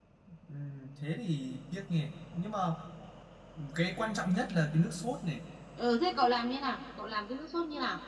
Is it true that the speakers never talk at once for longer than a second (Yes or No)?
Yes